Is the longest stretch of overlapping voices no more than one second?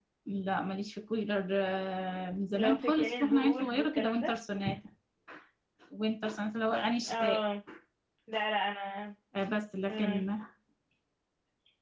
No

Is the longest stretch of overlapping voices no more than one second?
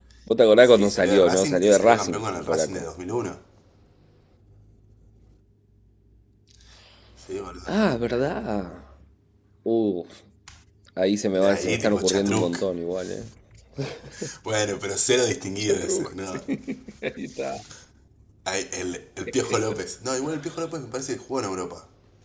No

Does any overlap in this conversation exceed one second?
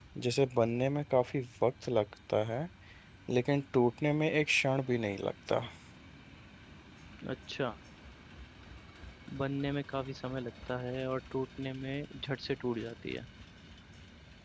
No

